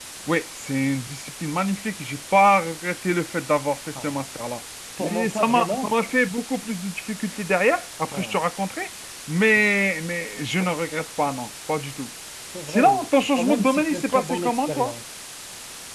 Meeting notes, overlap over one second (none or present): present